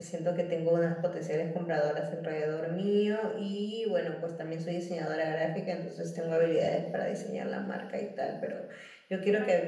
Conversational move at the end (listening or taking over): listening